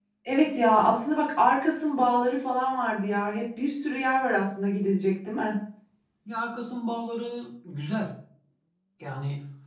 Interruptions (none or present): none